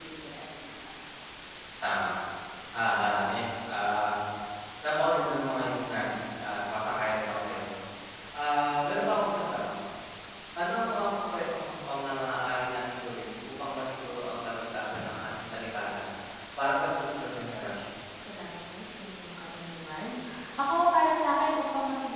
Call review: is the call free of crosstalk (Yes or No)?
Yes